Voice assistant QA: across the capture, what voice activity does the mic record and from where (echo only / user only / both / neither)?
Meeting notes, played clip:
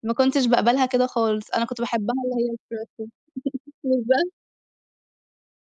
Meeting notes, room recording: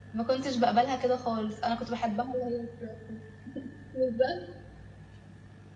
echo only